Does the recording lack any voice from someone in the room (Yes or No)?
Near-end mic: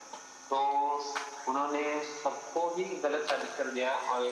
Yes